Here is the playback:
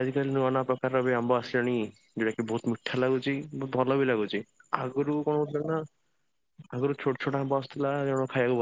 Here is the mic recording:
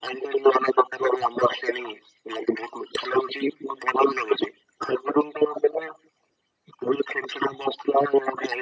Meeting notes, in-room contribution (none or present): none